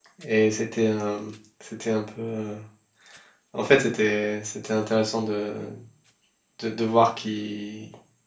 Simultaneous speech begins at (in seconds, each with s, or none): none